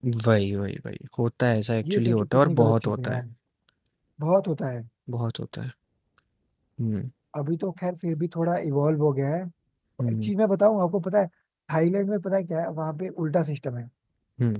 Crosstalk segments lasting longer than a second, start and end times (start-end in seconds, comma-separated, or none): 1.9-3.2